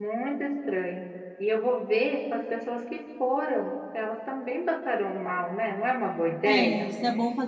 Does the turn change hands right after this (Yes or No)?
Yes